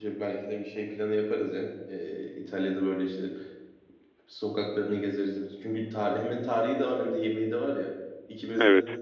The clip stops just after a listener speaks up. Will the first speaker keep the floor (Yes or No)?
Yes